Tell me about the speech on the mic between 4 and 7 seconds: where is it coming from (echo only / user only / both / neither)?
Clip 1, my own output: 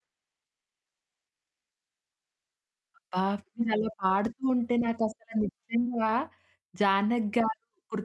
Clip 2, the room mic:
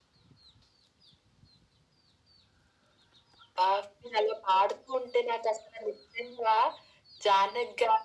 echo only